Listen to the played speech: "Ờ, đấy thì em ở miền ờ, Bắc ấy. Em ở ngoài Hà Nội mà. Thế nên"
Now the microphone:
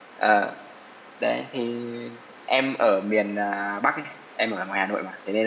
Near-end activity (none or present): none